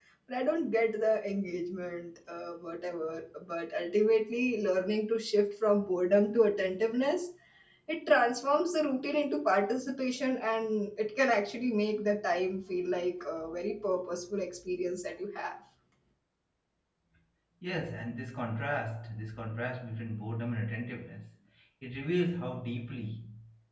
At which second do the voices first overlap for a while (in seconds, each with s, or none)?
none